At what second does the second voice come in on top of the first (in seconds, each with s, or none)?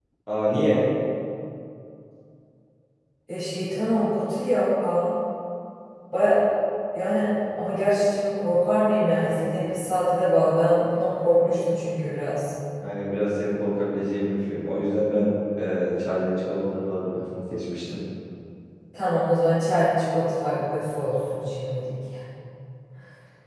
none